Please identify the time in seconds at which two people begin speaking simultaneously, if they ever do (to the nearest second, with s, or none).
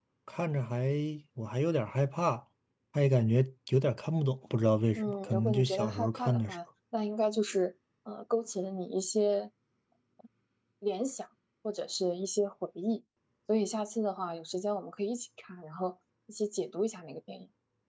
5 s